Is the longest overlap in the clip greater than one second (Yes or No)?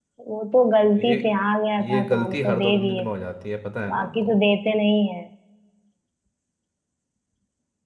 Yes